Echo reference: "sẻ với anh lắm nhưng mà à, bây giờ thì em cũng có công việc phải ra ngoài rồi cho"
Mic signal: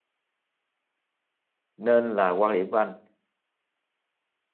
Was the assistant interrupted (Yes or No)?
Yes